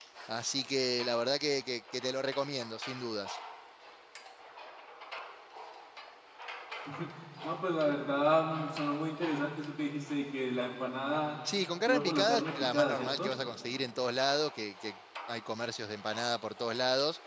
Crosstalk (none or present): present